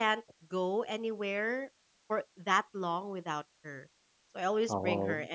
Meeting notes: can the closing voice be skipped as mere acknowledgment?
Yes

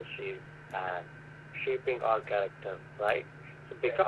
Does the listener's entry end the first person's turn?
No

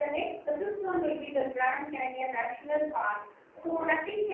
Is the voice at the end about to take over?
No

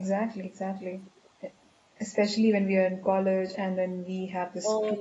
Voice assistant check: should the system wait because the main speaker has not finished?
Yes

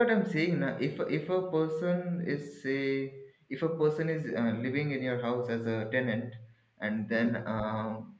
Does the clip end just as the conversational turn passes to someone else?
No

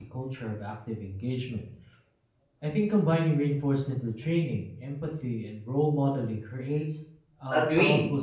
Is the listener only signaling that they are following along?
No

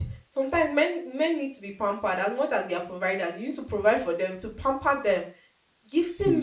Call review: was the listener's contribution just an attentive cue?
Yes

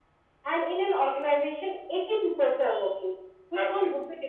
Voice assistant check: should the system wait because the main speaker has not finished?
Yes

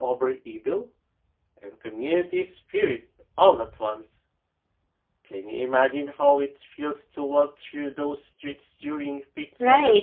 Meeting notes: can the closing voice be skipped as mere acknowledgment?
No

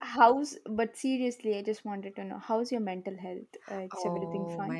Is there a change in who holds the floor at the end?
Yes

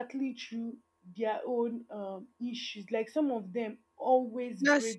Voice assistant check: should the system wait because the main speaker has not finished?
Yes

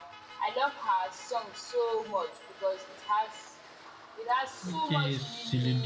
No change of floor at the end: No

